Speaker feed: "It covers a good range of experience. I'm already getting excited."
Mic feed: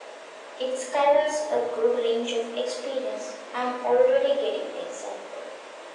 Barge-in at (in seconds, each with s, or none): none